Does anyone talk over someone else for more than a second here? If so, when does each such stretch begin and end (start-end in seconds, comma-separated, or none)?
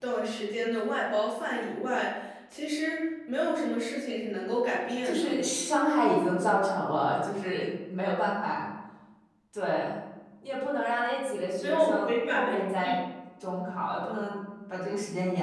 11.6-12.9